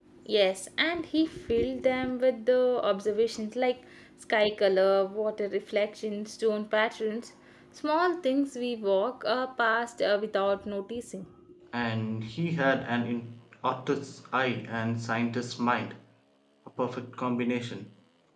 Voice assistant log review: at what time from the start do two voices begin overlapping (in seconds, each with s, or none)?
none